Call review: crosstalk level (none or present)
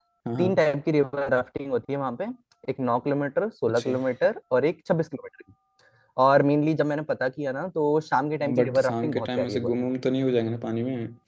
present